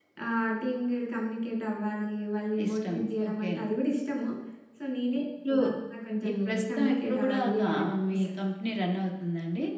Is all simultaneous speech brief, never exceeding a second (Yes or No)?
No